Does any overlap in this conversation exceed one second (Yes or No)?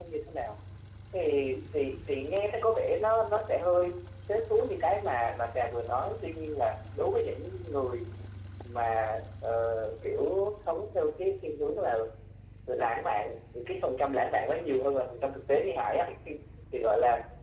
No